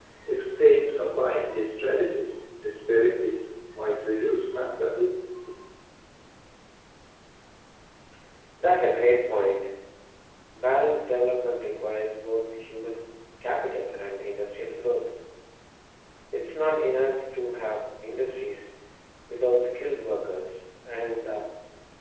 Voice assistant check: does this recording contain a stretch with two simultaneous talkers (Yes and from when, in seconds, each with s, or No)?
No